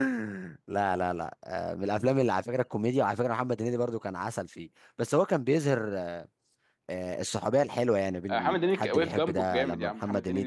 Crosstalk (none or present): present